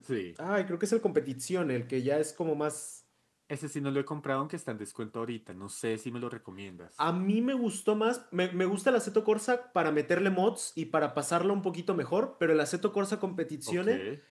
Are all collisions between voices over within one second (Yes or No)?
Yes